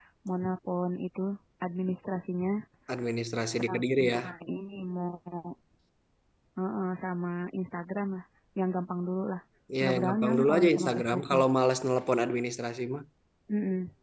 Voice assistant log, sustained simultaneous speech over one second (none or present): present